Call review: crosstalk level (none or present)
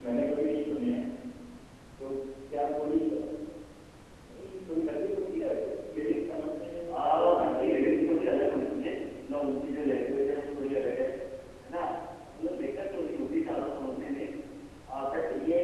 present